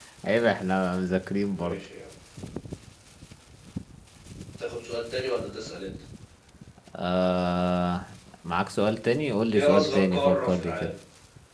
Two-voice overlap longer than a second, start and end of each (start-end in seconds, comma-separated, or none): 9.6-10.9